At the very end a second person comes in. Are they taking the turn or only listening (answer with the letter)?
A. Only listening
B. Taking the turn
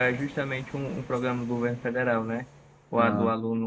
A